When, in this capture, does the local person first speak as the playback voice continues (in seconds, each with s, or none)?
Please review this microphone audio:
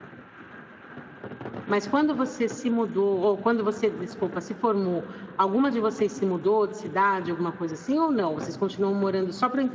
1.7 s